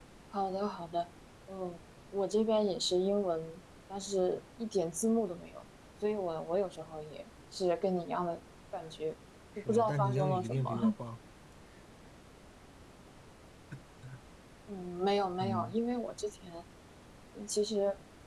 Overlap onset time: 9.6 s

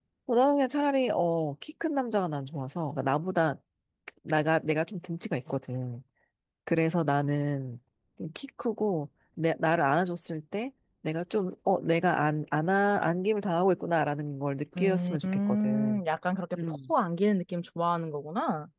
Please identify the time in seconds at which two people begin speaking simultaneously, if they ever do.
14.8 s

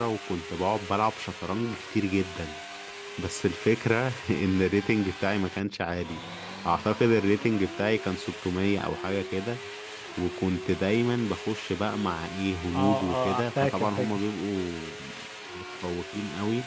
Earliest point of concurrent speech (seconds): 12.7 s

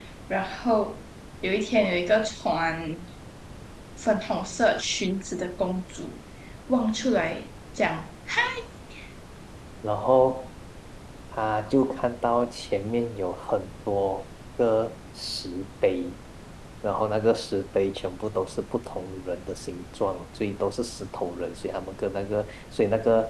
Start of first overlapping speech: none

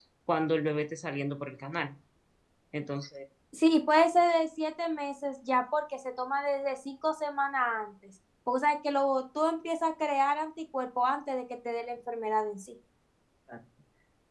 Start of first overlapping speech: none

